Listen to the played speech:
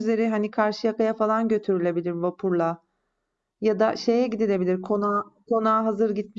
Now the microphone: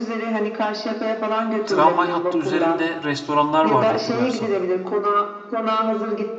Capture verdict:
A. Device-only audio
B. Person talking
B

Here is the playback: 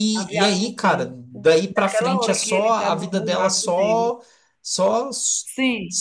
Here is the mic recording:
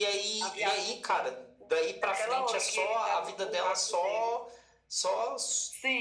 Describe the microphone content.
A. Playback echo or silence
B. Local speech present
A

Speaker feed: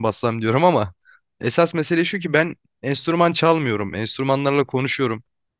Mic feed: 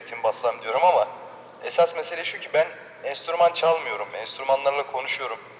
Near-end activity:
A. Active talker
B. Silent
B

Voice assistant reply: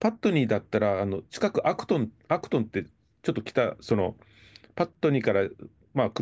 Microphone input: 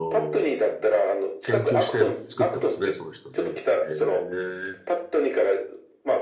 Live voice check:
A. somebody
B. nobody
A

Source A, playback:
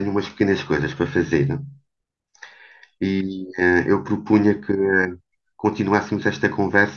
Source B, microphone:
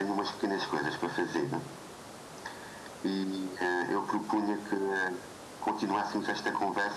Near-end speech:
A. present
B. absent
B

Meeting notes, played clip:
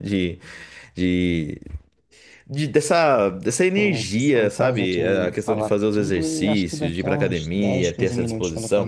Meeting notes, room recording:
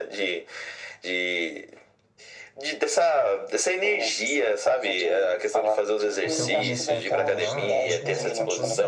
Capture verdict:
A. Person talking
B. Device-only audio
A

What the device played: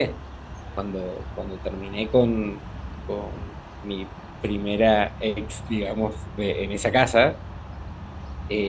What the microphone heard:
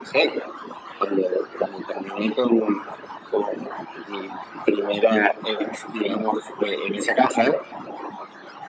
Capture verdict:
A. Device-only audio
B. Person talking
A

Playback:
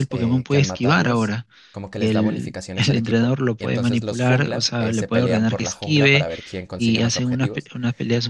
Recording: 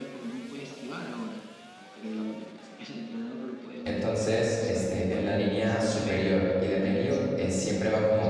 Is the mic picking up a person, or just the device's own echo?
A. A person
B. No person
A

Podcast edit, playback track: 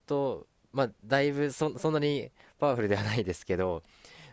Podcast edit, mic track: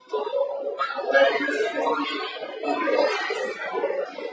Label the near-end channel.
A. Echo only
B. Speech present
A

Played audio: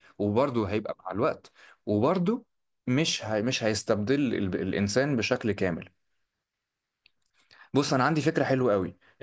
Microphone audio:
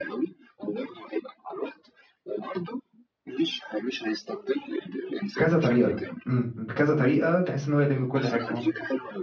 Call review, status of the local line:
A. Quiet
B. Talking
B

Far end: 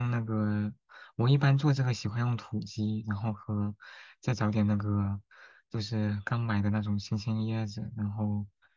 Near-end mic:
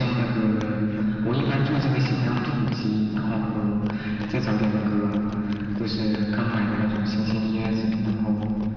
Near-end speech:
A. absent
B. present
A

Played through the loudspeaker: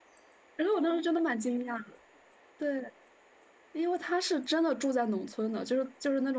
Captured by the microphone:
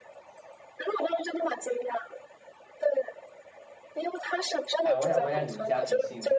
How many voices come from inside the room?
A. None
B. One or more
B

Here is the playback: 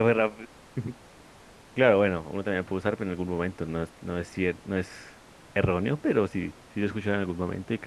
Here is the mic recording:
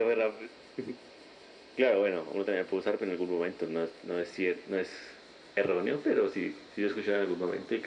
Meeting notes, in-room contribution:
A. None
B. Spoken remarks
A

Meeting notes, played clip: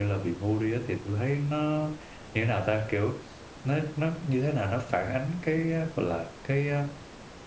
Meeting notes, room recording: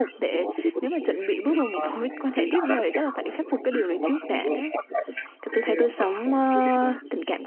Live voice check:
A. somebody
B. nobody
A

